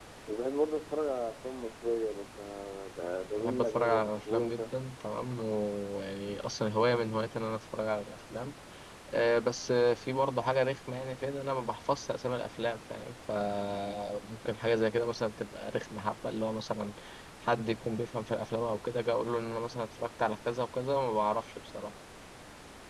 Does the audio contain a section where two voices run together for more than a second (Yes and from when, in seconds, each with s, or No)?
Yes, from 3.4 s